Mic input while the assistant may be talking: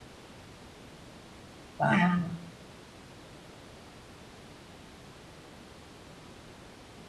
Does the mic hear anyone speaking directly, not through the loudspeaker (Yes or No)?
Yes